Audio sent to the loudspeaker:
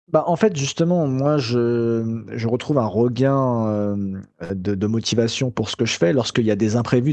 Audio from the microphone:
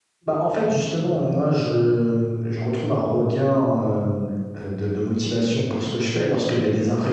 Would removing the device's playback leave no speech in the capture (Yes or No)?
Yes